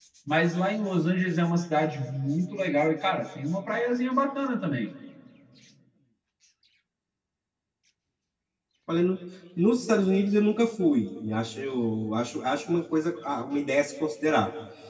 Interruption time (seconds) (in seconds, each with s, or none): none